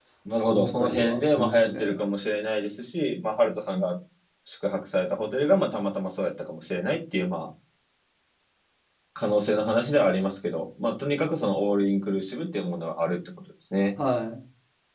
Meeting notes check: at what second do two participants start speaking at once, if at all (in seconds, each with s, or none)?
0.5 s